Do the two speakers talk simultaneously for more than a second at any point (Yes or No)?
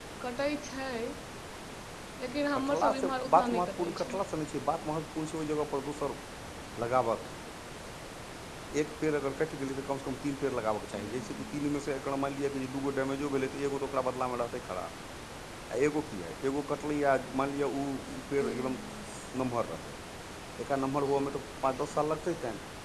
Yes